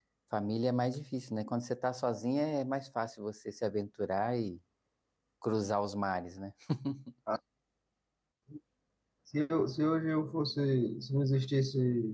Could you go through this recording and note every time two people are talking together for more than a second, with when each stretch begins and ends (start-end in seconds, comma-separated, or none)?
none